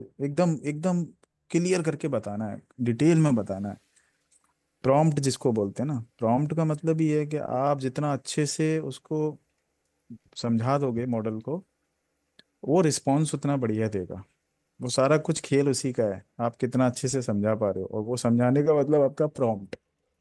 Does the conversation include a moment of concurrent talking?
No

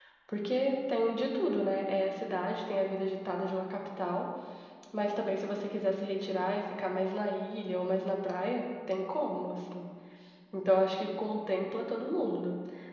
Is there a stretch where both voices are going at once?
No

